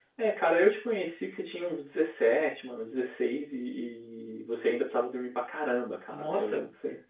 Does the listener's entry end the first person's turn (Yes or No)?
Yes